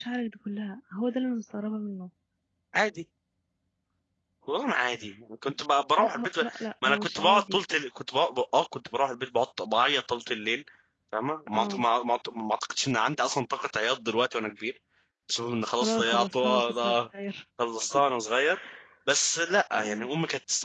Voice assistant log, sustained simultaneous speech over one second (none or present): present